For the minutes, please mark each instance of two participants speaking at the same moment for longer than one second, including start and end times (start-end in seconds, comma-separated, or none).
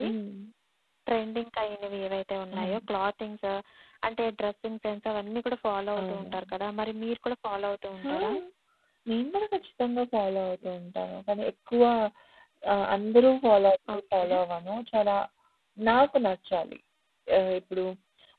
none